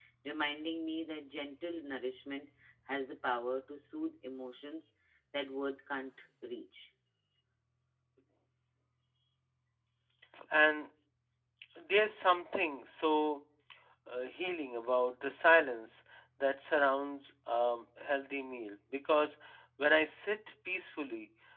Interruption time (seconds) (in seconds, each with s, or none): none